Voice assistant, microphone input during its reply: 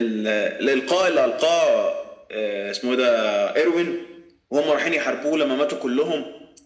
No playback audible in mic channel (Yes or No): No